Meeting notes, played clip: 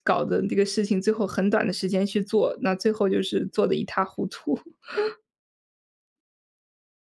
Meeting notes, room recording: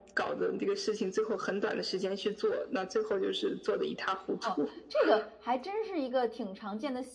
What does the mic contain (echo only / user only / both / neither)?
both